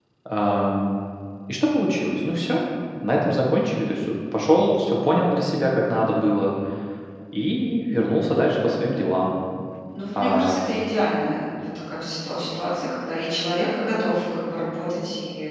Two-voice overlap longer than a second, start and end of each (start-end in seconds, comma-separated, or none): none